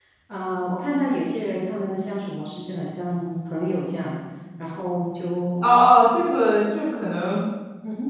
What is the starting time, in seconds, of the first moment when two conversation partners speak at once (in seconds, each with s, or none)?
none